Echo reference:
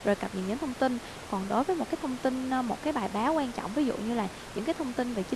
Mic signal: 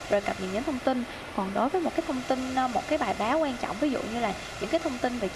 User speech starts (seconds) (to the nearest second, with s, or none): none